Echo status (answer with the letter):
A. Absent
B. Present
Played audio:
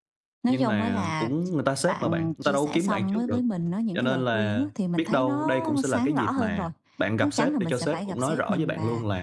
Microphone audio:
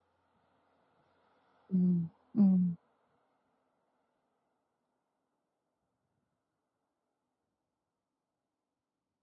A